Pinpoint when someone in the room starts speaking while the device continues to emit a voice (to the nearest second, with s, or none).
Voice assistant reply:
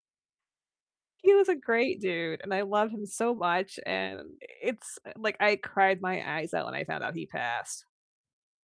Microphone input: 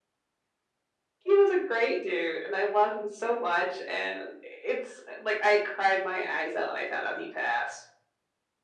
none